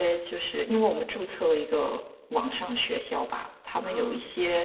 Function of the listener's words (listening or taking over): listening